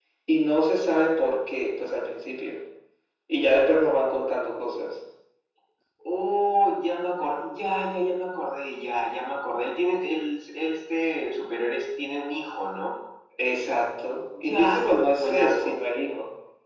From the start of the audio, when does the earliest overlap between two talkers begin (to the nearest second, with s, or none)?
14 s